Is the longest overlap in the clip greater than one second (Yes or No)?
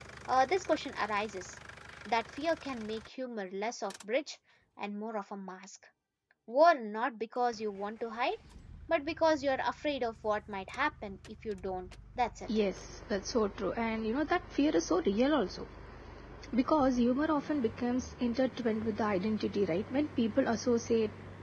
No